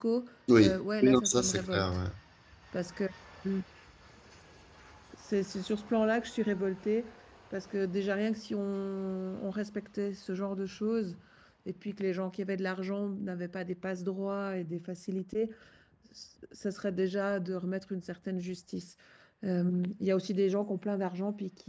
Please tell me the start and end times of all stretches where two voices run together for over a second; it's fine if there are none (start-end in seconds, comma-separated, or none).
0.6-2.0